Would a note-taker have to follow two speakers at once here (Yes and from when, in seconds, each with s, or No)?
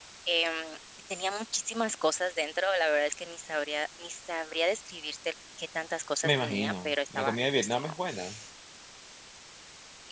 Yes, from 6.2 s